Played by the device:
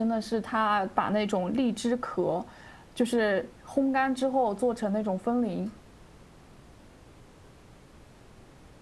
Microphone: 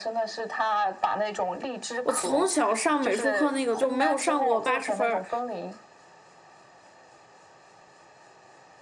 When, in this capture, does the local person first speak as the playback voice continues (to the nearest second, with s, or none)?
2 s